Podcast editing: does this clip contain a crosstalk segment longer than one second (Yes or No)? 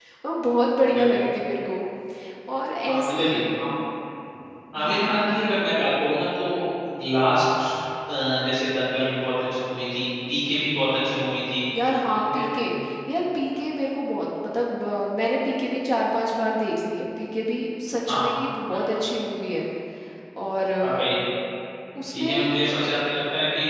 No